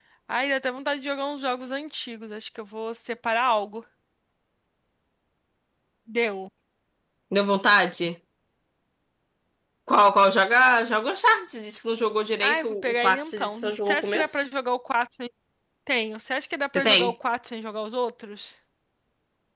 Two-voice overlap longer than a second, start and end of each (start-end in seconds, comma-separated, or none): 12.4-14.4